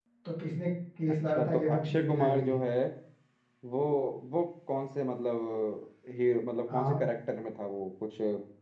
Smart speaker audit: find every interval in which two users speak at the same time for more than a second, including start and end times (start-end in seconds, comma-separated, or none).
1.3-2.6